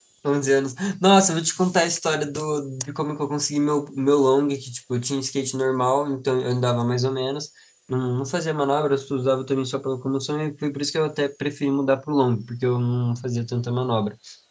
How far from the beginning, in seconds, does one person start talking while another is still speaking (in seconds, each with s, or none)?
none